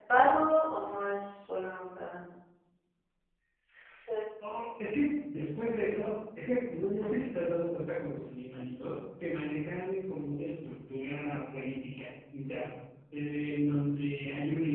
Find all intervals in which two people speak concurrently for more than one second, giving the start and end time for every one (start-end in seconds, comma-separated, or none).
none